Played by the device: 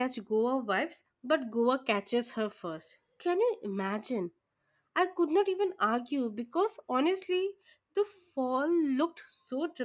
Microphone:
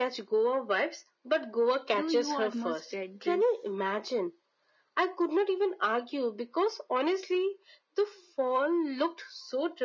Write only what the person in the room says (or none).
Do you almost get this